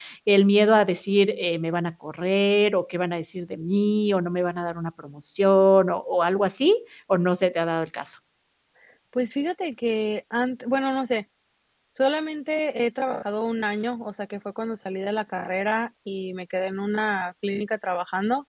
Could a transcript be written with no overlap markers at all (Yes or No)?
Yes